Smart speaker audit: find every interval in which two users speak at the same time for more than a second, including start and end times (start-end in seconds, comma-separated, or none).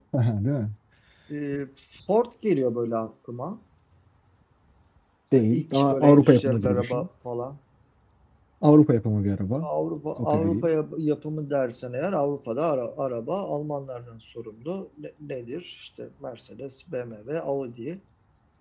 5.4-7.1